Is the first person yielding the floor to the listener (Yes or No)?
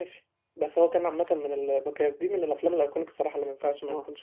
Yes